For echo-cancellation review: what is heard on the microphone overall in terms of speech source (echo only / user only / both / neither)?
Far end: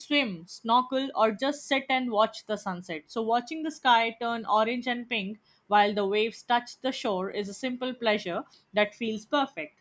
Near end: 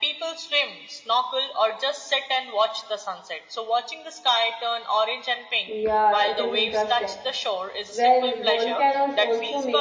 both